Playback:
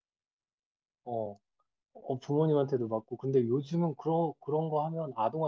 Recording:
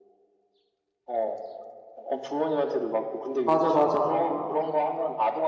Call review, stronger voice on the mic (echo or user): user